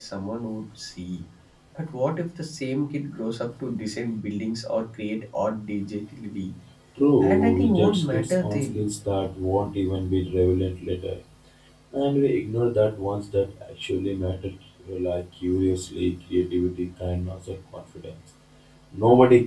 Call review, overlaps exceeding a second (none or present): present